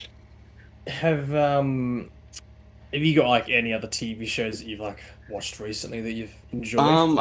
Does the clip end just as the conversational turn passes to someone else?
Yes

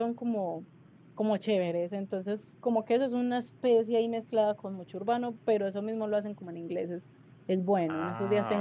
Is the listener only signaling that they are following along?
Yes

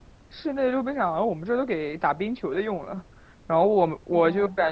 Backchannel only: Yes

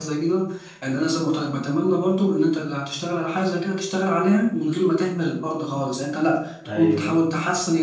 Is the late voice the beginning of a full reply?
No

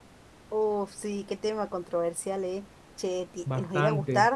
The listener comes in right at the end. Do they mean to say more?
No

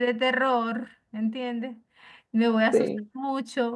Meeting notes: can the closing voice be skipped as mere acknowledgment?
Yes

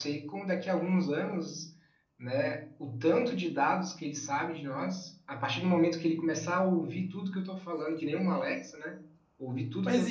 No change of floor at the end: No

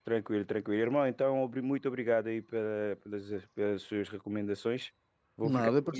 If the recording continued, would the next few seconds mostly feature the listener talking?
No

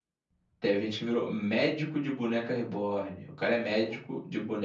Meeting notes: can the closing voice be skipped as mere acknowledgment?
Yes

